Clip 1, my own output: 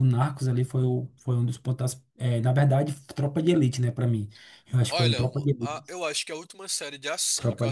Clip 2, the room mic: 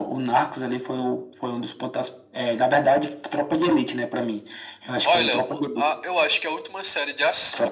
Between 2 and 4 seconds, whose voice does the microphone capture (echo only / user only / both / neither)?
echo only